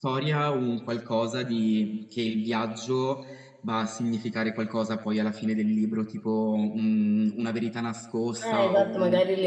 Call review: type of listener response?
taking over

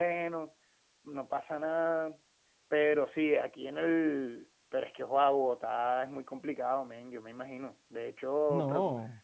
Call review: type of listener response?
listening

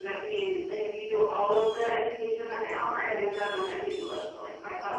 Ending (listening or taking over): taking over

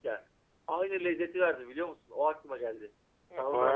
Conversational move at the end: taking over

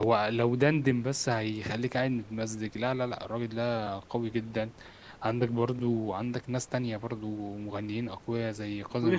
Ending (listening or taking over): taking over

